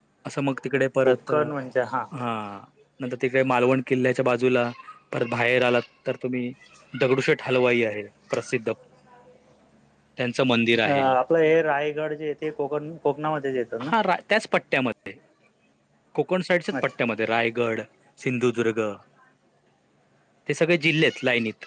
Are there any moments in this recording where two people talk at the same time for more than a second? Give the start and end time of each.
none

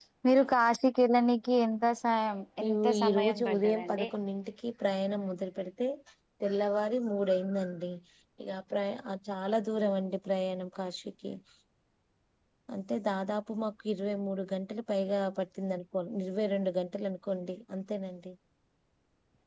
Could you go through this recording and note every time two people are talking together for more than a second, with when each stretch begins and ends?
2.7-4.1

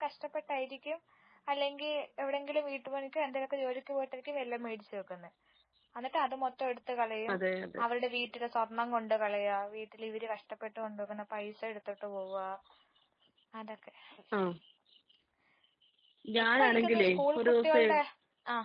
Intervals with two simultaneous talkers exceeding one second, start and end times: 16.6-17.9

